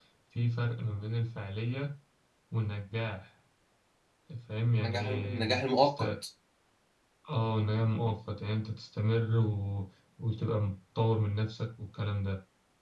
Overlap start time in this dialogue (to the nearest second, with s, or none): 5 s